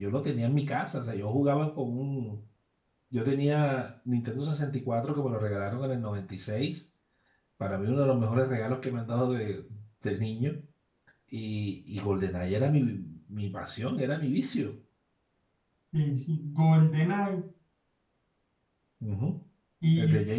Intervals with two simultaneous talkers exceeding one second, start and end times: none

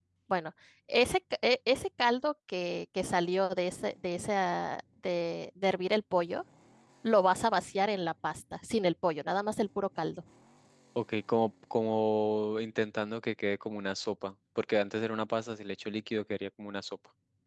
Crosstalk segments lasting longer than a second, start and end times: none

